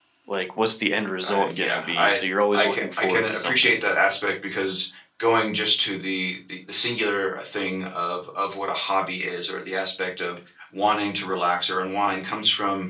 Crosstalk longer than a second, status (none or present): present